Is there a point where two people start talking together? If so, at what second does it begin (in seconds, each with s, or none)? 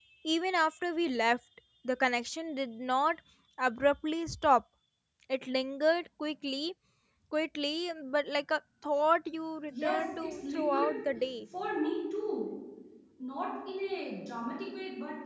9.7 s